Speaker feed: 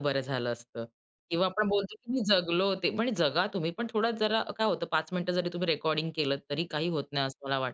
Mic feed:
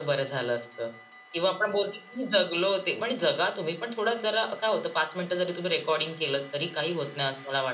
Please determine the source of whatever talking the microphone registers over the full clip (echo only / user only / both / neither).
echo only